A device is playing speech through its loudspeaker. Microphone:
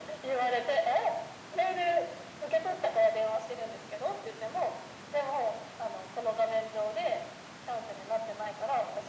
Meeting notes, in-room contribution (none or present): none